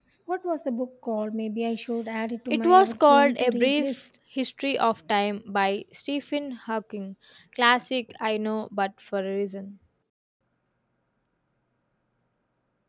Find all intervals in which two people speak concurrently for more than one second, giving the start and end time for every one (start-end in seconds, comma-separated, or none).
2.5-3.9